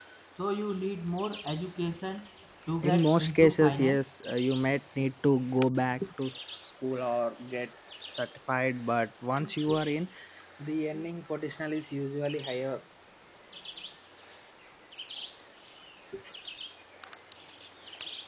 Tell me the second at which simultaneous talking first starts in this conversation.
2.8 s

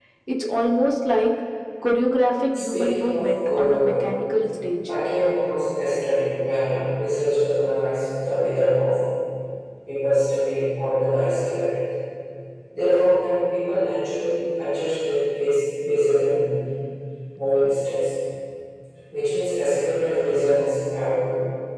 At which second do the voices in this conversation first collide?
2.5 s

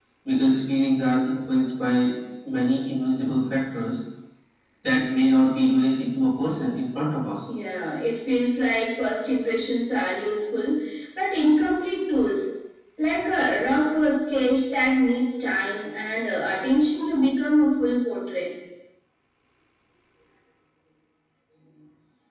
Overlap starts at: none

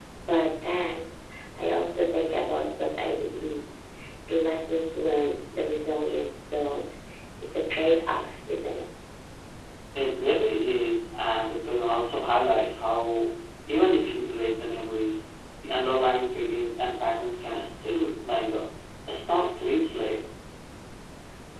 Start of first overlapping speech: none

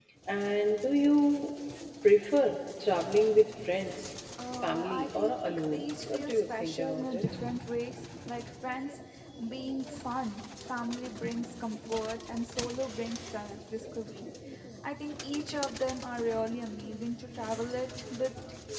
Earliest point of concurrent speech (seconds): 4.6 s

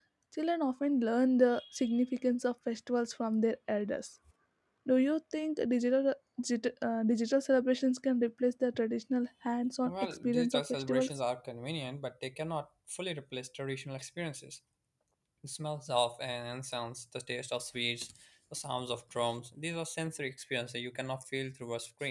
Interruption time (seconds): 9.8 s

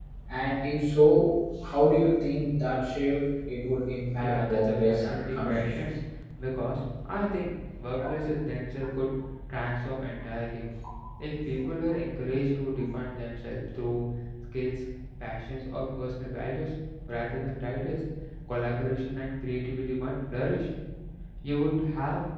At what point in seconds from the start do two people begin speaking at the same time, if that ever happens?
4.2 s

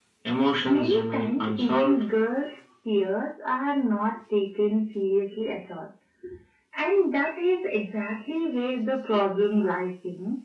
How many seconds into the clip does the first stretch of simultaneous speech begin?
0.6 s

